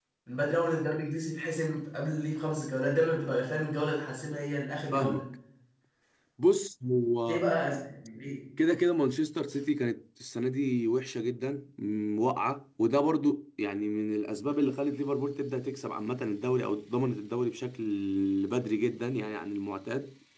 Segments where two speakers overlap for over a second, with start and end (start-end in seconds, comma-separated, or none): none